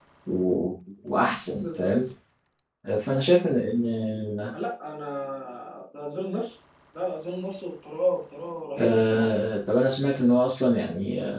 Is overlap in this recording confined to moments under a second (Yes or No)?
Yes